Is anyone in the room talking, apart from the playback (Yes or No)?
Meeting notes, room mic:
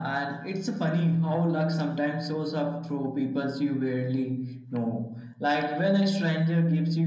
No